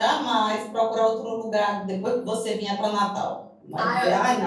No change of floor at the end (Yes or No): No